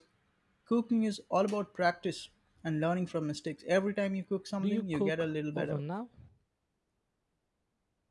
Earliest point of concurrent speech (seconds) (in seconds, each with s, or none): 4.6 s